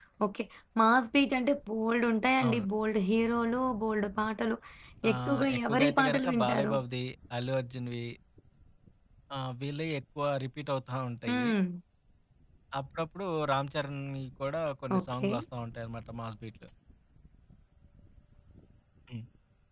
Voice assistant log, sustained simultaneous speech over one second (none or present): present